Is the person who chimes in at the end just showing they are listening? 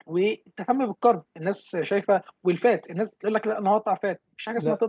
No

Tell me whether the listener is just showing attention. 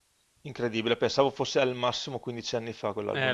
No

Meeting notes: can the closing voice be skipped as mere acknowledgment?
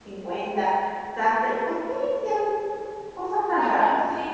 No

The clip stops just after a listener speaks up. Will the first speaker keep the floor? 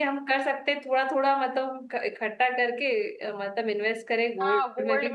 No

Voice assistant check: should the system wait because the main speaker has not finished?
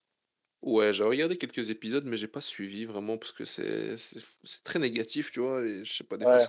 Yes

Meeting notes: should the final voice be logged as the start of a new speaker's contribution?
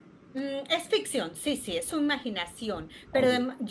No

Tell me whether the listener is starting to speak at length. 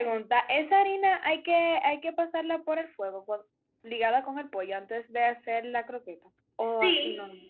Yes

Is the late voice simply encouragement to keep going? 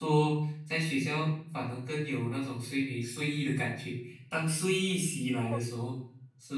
Yes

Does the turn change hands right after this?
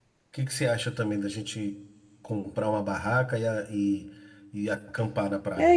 Yes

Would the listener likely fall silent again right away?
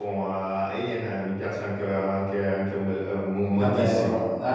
No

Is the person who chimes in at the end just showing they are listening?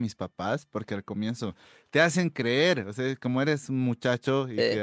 Yes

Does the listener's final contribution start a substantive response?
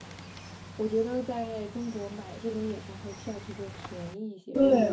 Yes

